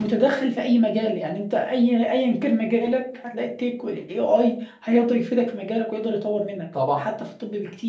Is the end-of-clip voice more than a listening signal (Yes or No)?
No